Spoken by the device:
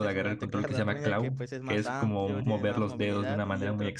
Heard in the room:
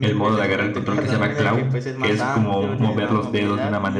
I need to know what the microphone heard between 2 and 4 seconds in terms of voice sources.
echo only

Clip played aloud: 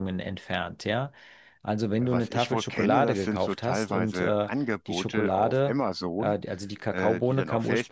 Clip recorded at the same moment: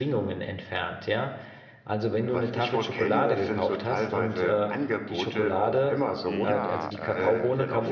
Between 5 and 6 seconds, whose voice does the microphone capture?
echo only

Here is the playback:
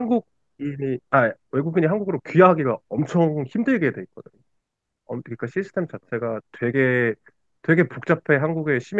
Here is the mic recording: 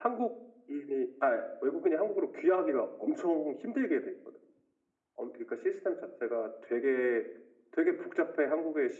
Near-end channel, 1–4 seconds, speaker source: echo only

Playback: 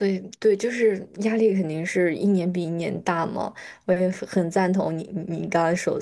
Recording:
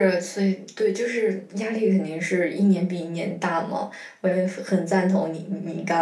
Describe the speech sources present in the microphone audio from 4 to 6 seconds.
echo only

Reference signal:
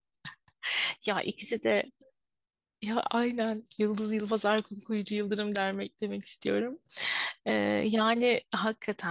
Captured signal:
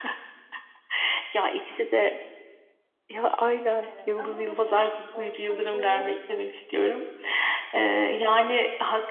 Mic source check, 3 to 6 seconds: both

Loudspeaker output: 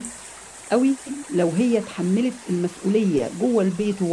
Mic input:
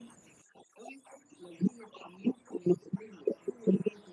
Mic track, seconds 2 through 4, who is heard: echo only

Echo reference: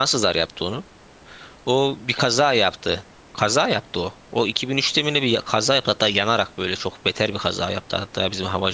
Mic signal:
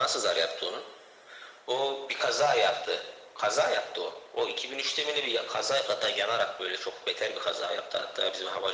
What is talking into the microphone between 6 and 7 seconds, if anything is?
echo only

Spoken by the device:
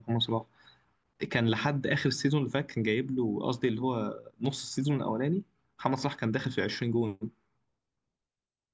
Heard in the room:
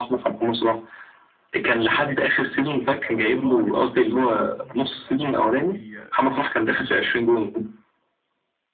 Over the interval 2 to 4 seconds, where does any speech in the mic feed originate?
both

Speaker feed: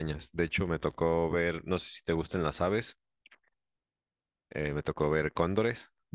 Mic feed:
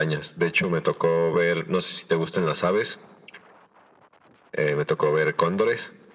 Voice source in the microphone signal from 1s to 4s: echo only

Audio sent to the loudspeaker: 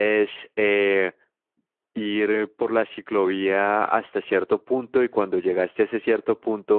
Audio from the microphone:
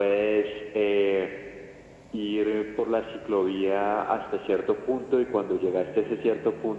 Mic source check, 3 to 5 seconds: echo only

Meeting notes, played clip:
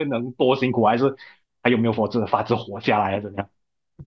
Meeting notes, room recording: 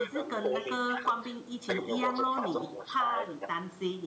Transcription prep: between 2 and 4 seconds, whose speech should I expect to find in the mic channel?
both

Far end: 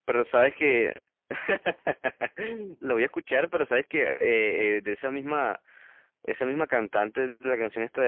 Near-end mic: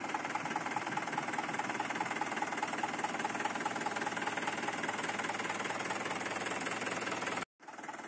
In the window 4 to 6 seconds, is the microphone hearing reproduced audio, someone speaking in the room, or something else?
neither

